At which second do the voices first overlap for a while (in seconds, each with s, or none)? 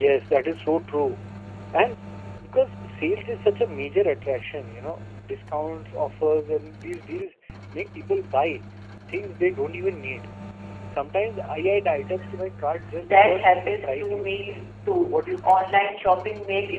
13.0 s